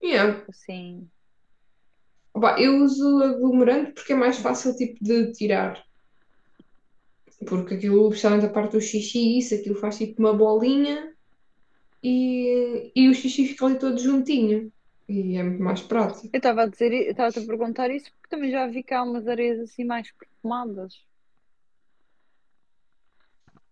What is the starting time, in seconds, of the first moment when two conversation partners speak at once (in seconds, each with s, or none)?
none